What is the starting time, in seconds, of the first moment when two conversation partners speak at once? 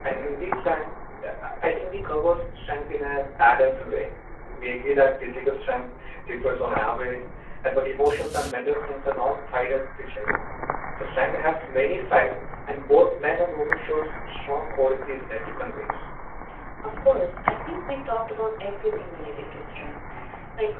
none

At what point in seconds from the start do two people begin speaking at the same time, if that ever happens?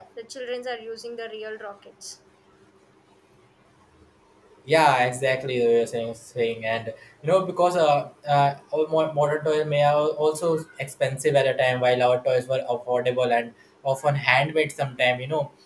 none

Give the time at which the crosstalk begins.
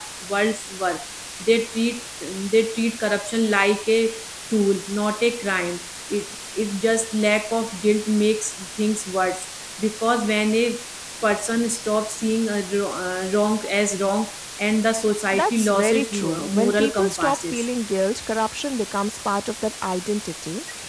15.3 s

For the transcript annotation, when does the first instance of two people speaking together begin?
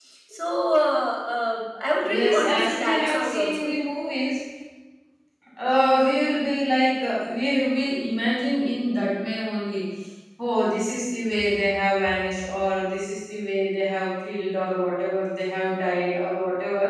2.0 s

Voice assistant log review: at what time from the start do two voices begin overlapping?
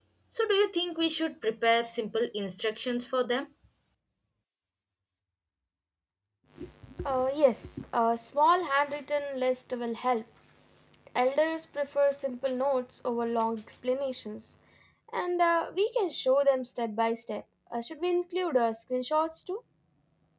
none

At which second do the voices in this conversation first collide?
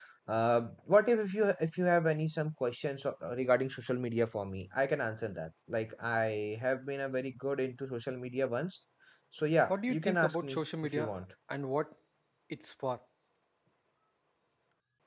9.7 s

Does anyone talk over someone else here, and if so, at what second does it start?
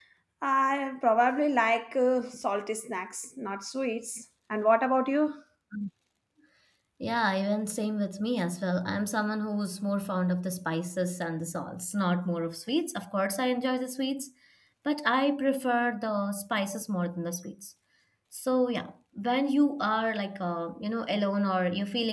none

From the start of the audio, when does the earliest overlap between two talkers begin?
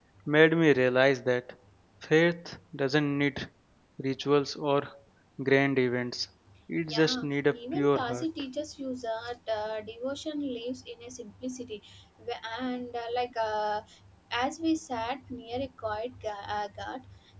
6.9 s

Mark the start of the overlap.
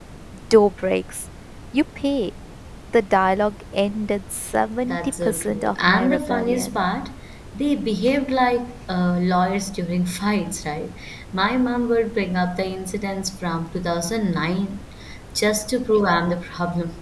4.8 s

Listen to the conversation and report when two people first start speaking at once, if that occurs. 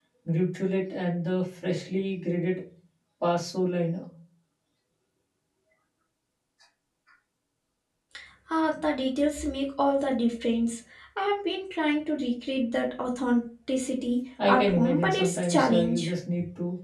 14.4 s

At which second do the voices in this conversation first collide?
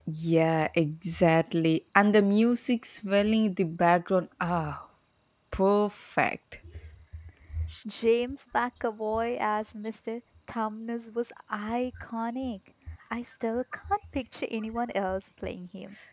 none

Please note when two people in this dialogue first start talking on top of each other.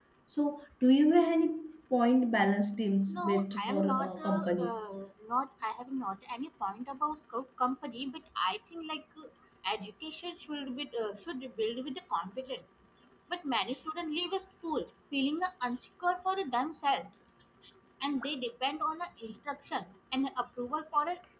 3.1 s

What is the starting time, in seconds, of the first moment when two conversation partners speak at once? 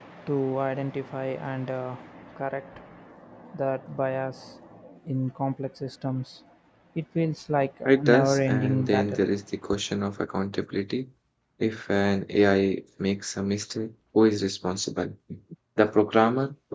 7.8 s

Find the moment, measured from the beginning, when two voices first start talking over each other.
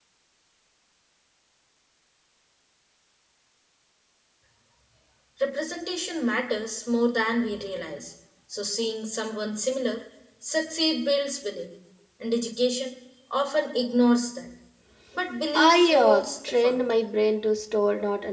15.5 s

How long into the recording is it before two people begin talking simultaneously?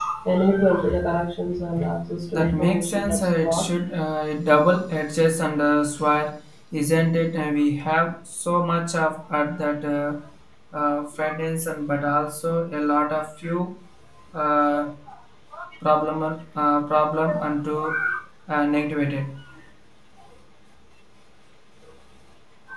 2.3 s

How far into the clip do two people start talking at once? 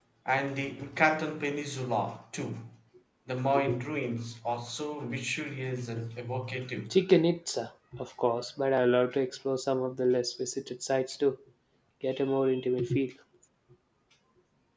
none

